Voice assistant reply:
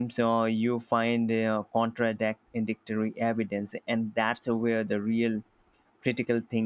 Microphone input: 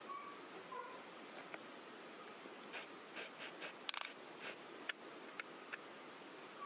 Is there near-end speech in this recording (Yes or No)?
No